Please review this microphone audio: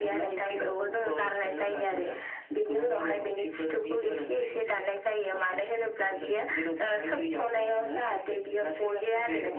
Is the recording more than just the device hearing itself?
No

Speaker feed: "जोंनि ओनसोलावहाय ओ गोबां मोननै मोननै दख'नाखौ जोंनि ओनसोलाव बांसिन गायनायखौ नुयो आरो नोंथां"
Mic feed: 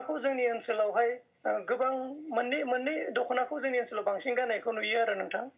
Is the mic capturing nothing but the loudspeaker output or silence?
Yes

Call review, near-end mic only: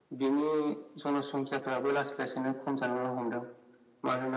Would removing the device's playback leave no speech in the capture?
Yes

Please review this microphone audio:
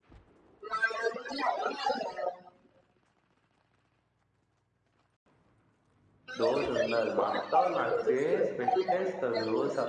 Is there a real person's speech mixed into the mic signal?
Yes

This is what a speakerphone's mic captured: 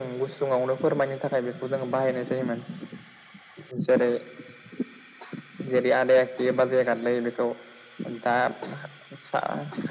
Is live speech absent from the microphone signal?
Yes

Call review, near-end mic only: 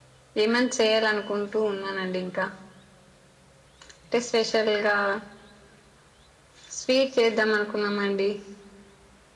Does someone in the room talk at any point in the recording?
No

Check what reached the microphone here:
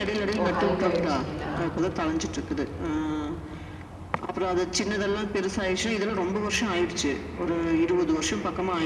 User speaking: Yes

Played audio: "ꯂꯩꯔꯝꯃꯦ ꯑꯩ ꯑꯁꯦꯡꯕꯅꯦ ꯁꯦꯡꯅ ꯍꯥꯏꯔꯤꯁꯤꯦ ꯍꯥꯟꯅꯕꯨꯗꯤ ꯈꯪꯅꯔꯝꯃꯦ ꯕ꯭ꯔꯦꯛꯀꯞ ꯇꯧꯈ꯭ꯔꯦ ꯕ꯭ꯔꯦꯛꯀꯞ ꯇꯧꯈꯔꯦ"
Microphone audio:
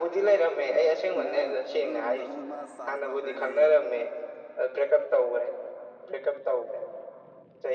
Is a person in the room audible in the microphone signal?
Yes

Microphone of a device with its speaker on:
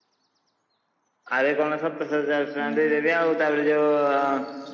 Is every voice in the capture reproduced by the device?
No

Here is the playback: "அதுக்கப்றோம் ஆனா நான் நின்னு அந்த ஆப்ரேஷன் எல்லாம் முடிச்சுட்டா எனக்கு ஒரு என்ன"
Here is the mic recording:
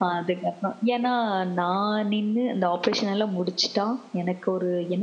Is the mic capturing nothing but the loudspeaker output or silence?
Yes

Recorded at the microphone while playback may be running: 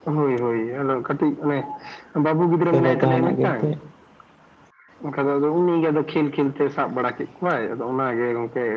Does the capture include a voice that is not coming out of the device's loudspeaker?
Yes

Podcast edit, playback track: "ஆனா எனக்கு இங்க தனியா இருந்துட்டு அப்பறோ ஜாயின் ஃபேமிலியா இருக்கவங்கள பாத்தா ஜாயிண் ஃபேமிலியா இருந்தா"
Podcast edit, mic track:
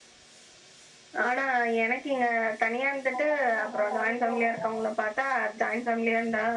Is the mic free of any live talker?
No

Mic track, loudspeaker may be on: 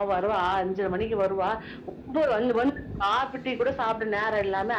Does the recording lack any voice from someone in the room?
Yes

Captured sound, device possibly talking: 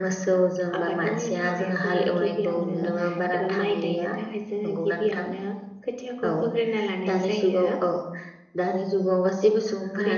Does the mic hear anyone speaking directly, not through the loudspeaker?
Yes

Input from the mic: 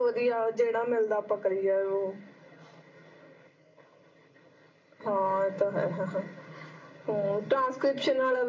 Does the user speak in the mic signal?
No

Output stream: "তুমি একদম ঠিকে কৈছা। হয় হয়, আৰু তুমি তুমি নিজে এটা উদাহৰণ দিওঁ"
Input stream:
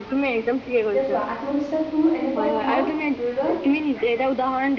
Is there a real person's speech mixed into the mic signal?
Yes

